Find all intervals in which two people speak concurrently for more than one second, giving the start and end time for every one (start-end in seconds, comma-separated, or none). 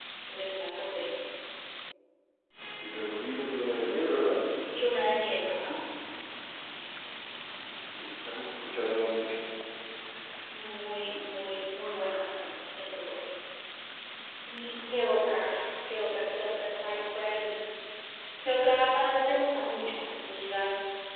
none